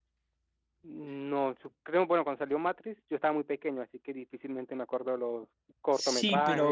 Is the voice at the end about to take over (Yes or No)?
Yes